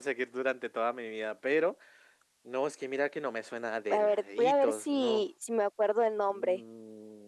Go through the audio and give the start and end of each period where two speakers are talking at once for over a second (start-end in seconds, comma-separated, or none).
3.9-5.3